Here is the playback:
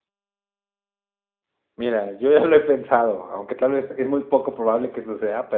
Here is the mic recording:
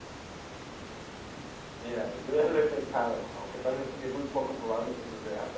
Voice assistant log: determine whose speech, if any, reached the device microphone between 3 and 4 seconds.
echo only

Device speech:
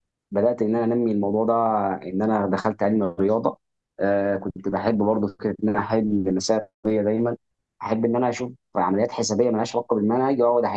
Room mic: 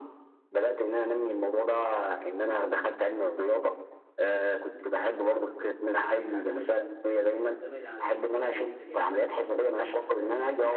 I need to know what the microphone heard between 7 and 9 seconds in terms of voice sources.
both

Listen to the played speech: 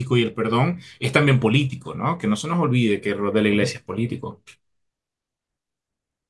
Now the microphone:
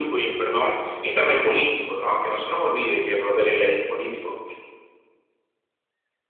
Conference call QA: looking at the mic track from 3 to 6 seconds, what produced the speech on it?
echo only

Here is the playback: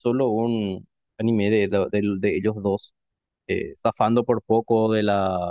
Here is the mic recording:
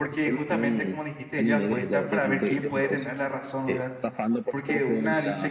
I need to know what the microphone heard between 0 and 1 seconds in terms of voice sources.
both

